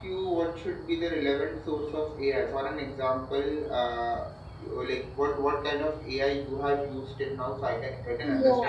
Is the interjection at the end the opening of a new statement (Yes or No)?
Yes